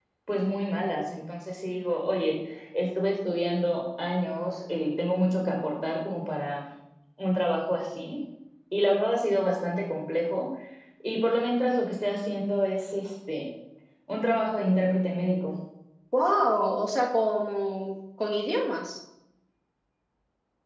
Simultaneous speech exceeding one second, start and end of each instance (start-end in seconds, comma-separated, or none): none